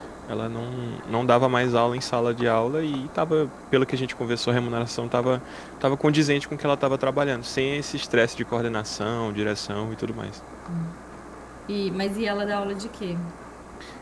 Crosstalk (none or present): none